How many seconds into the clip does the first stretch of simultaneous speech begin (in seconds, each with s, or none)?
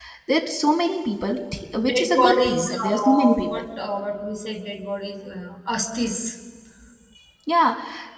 1.8 s